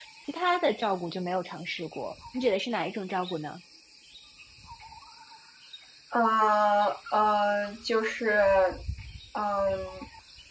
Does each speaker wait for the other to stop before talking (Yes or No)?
Yes